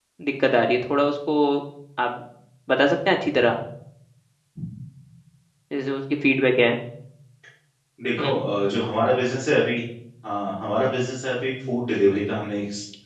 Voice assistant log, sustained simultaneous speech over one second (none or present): none